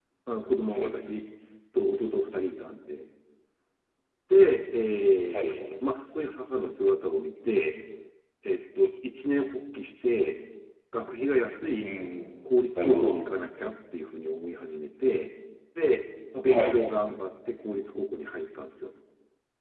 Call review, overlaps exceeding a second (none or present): none